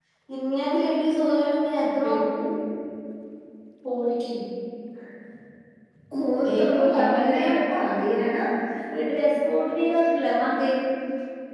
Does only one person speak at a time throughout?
No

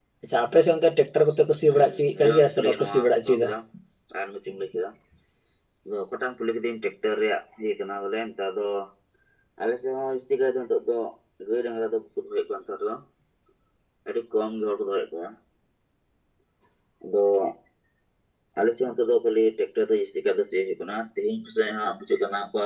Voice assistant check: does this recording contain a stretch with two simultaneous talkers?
Yes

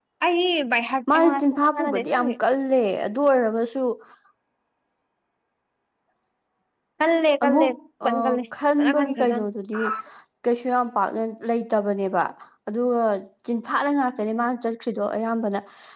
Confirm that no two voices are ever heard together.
No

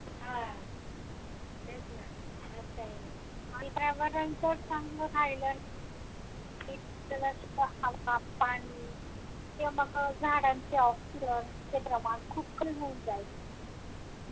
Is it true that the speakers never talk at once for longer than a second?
Yes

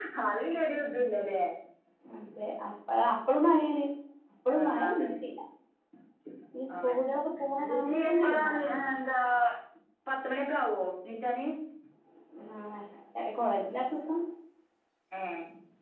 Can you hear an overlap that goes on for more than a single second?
Yes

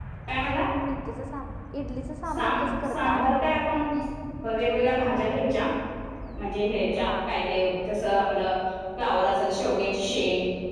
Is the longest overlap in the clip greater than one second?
Yes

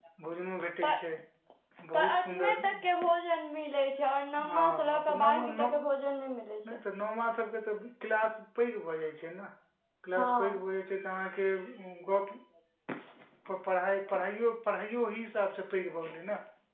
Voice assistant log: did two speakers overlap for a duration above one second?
Yes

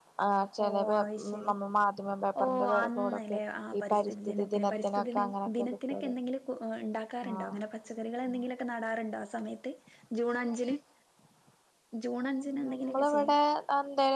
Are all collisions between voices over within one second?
No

